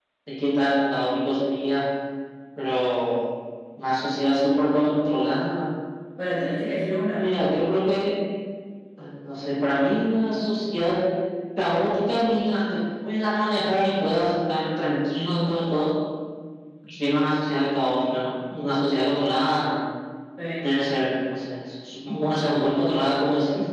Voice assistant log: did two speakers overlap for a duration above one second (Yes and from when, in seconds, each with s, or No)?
No